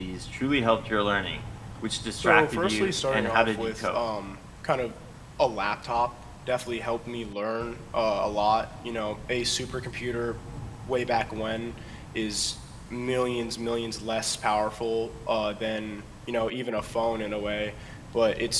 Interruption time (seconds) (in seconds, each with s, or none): 2.2 s